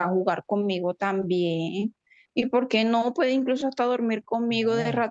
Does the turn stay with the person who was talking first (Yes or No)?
No